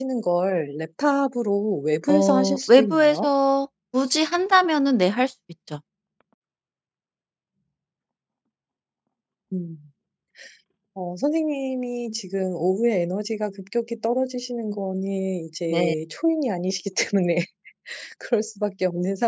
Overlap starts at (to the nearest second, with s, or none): 2 s